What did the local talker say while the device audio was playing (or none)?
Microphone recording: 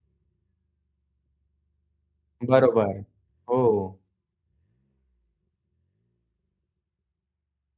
बरोबर. हो.